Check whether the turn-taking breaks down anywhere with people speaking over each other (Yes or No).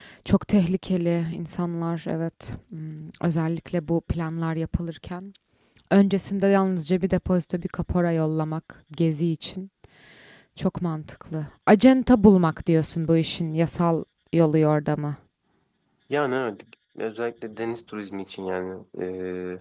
No